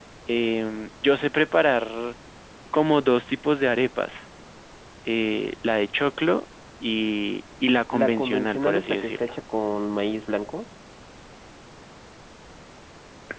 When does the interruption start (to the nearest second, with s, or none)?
8 s